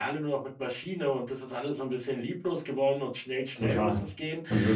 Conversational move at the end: taking over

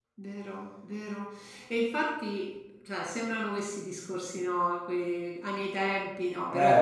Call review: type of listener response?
listening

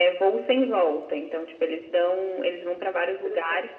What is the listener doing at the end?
listening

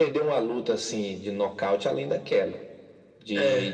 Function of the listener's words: listening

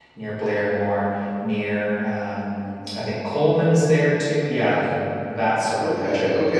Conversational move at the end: taking over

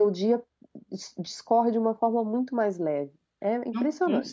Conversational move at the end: taking over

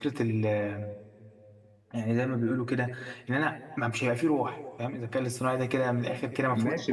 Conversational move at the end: taking over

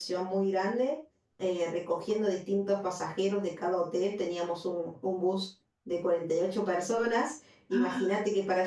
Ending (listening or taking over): listening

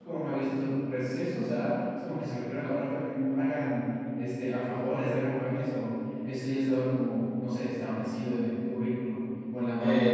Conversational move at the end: taking over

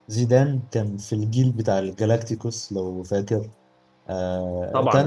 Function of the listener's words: listening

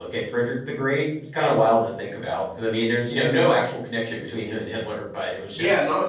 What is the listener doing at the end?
taking over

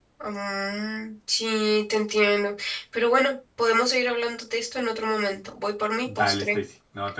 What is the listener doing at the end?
taking over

